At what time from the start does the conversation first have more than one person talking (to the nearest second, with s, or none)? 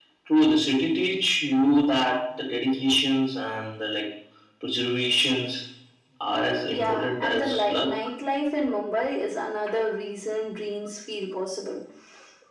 7 s